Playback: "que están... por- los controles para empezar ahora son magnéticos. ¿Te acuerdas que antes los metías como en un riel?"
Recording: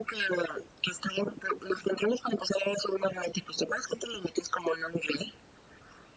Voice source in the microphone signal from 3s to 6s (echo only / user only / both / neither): echo only